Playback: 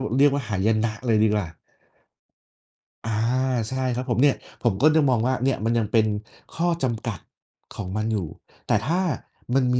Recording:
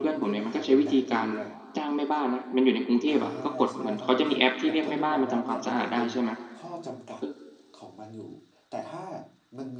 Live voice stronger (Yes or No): Yes